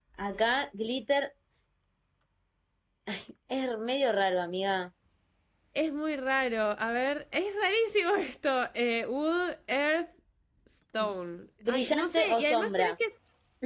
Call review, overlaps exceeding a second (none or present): present